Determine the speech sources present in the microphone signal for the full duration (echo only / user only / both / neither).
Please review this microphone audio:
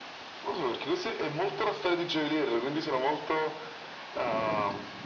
echo only